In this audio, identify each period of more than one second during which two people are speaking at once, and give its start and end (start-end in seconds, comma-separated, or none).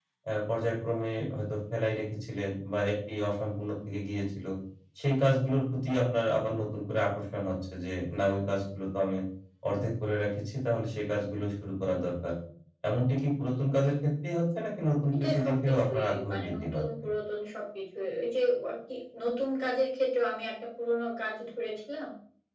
15.1-17.0